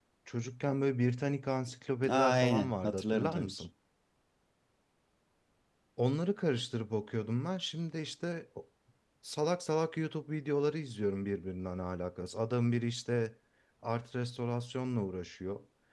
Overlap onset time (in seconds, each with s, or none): 2.0 s